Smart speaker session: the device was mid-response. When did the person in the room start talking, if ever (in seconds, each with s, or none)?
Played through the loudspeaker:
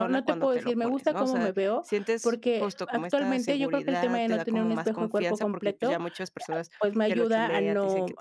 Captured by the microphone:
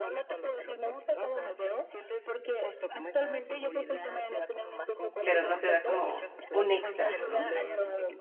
5.2 s